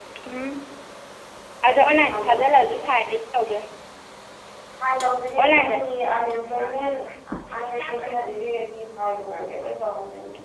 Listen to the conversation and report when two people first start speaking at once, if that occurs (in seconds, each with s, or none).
1.7 s